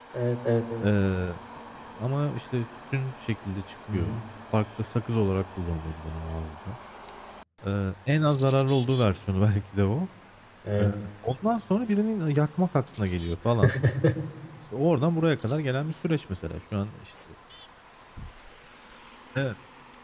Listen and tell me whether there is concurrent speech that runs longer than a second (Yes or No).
No